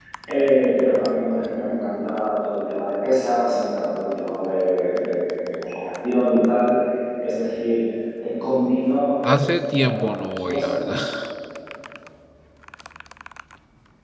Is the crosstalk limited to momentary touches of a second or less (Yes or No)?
No